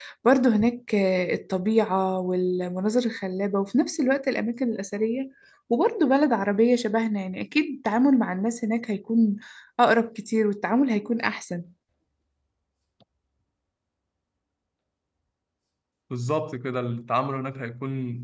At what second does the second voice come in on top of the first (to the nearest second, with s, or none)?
none